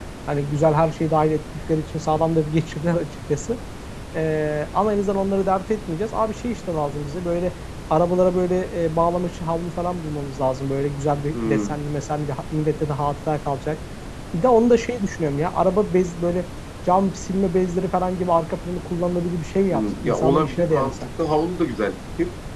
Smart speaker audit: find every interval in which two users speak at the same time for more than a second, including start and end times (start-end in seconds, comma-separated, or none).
19.7-20.9